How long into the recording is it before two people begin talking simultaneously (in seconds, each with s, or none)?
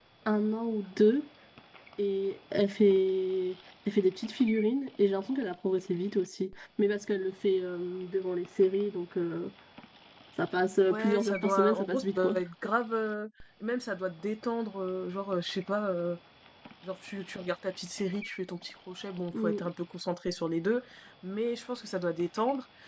10.9 s